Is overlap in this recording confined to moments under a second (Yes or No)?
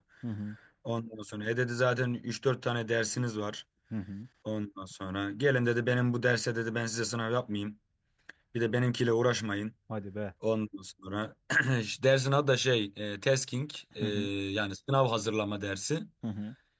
Yes